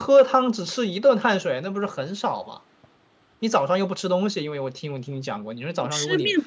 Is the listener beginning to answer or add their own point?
Yes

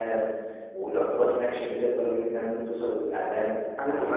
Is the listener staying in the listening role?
No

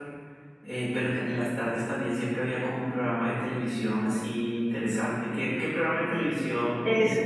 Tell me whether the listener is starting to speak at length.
Yes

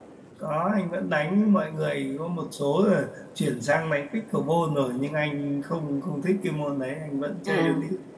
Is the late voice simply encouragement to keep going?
No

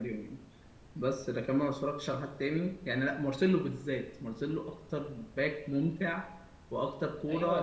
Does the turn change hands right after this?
Yes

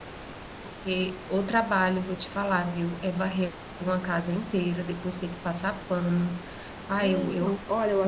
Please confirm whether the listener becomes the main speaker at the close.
Yes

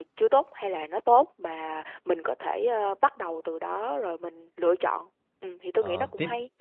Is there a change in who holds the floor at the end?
Yes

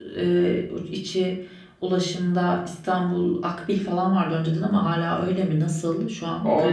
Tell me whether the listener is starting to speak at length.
Yes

